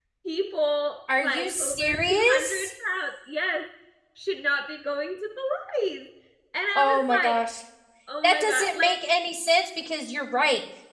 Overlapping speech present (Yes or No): Yes